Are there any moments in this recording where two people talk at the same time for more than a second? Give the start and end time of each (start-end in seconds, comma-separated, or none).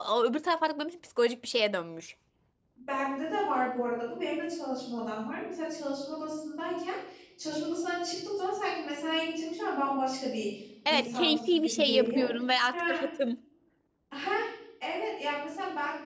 10.9-12.2